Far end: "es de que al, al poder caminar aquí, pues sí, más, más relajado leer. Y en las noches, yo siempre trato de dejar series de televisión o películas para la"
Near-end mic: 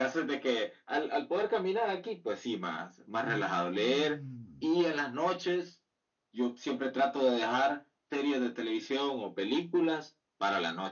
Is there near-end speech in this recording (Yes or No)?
Yes